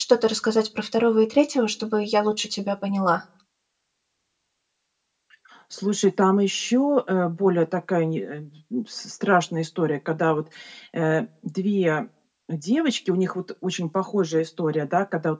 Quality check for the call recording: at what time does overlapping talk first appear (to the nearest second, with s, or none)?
none